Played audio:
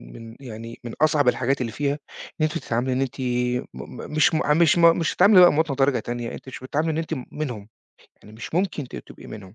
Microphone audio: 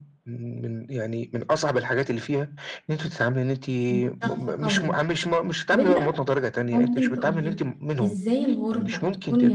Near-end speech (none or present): present